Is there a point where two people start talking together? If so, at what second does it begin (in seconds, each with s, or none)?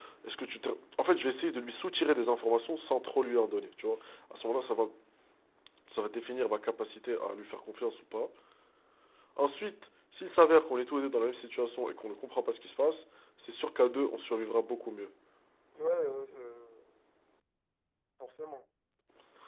none